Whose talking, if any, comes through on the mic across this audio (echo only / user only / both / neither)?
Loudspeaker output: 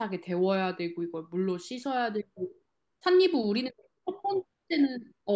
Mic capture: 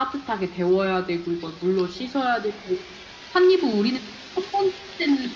echo only